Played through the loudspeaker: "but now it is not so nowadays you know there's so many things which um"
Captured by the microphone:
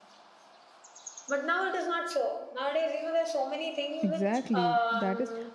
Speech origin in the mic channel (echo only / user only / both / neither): both